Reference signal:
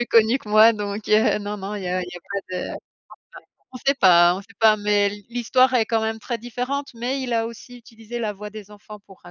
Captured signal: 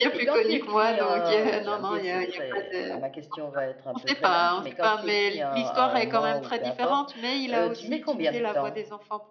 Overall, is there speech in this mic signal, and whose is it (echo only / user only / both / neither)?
both